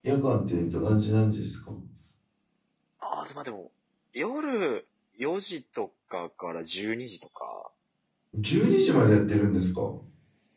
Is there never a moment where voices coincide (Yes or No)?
Yes